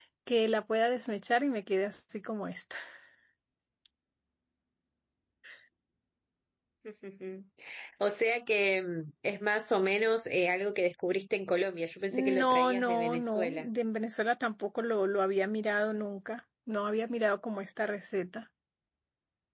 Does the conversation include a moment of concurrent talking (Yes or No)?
Yes